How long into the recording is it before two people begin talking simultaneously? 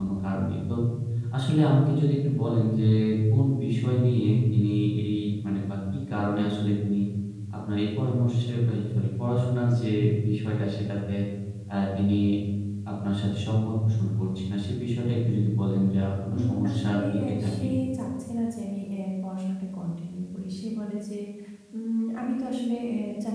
16.3 s

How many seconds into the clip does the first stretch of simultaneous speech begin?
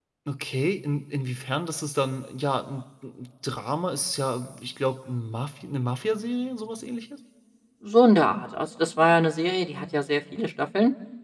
none

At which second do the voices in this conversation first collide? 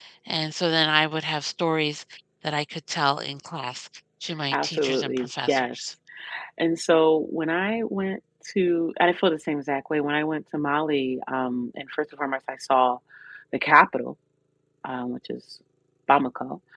4.5 s

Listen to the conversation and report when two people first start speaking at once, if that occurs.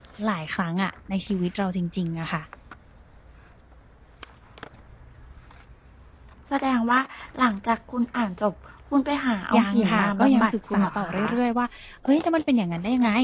9.5 s

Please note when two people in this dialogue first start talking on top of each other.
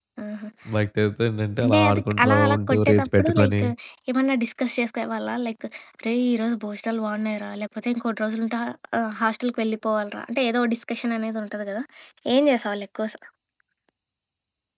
1.6 s

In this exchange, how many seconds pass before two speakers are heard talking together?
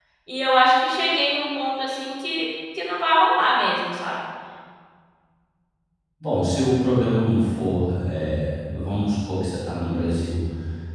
none

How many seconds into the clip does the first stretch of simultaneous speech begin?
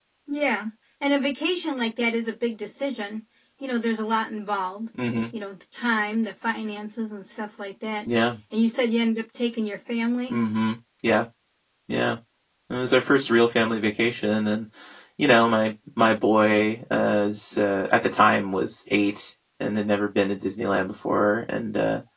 none

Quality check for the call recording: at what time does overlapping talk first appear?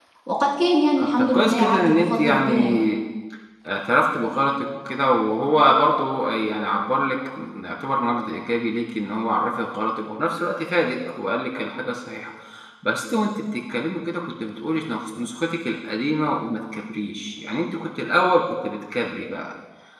1.0 s

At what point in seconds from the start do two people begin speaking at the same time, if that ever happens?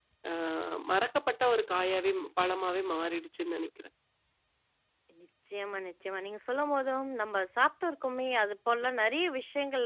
none

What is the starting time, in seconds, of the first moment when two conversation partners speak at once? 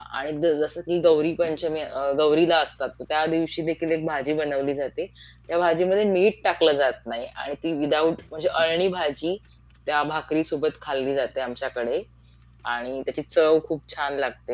none

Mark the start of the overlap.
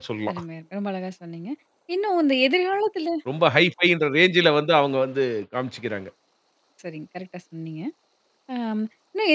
none

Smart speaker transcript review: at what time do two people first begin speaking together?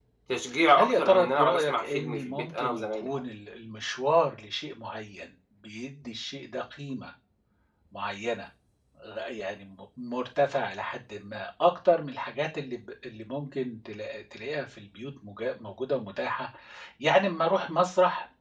0.8 s

